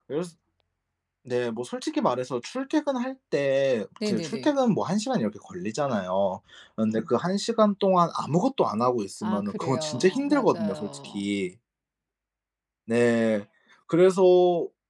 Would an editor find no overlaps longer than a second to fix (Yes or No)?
No